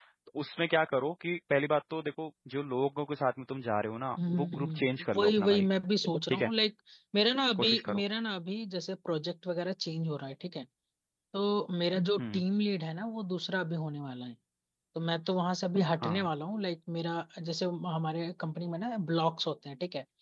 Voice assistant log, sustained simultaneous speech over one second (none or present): present